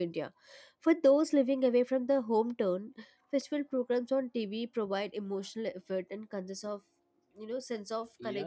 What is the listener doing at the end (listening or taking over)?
taking over